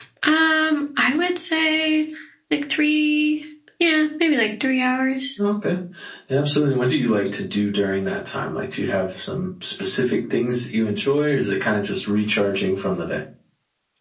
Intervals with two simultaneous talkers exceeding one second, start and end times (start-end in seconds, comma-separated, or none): none